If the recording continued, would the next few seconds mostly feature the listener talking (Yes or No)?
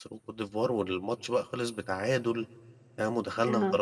Yes